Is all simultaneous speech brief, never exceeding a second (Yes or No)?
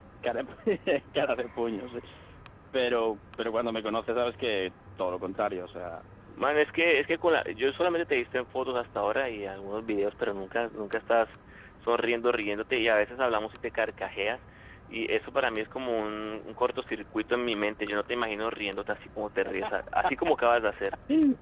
Yes